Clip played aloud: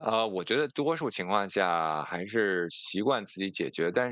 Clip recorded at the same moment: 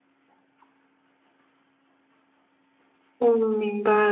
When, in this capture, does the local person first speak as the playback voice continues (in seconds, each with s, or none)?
3.2 s